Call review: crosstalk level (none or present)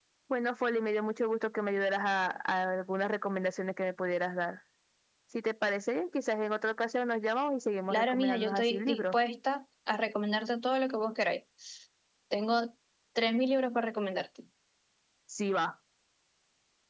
present